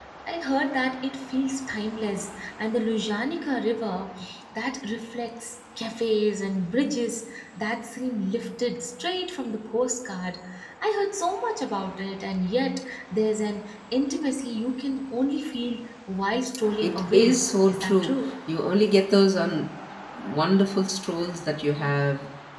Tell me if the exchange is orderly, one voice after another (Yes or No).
No